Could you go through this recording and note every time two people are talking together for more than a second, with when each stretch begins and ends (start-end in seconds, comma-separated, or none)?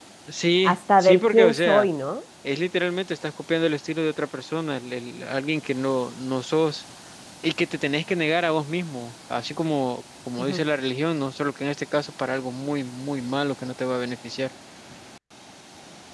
0.6-1.9